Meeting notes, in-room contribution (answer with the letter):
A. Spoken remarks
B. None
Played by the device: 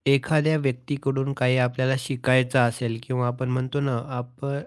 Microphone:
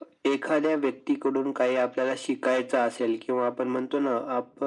B